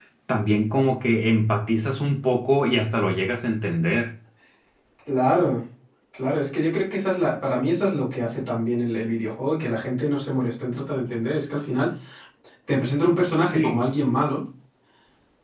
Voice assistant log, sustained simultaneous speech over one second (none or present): none